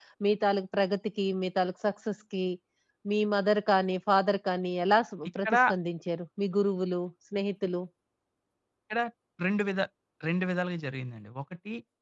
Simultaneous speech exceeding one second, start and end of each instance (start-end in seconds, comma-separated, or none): none